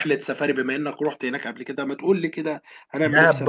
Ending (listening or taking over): taking over